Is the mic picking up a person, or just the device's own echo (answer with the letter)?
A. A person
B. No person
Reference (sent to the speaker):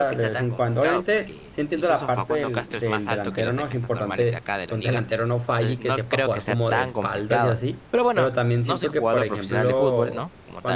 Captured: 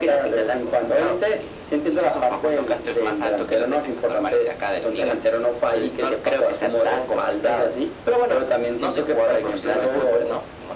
B